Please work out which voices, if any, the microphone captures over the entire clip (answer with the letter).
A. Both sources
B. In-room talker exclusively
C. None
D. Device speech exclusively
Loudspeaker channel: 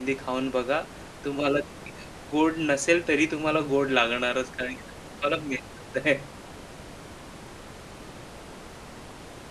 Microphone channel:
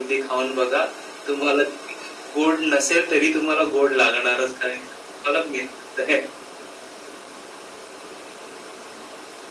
D